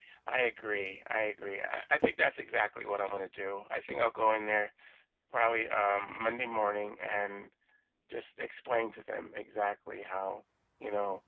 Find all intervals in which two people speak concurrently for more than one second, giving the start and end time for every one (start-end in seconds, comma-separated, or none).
none